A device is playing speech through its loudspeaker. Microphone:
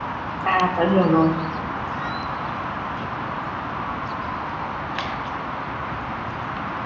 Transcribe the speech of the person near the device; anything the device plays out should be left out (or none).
À tớ hiểu rồi.